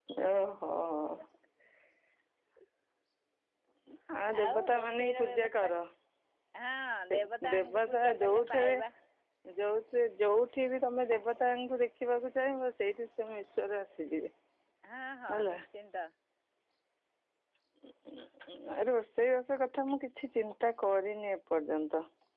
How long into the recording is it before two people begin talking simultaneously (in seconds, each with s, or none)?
4.4 s